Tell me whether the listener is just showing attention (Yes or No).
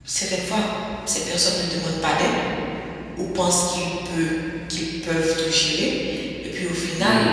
Yes